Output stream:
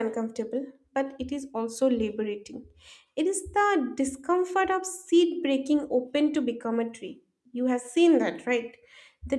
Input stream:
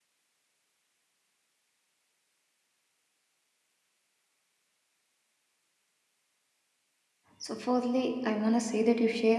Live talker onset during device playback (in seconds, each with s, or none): 7.4 s